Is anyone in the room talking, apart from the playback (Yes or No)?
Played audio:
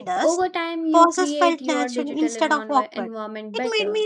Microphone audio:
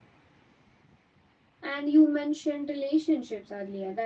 Yes